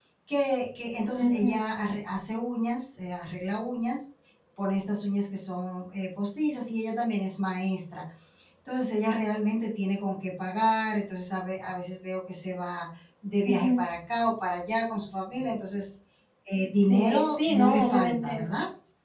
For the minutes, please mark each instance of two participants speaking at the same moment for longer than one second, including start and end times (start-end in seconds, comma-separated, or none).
16.9-18.4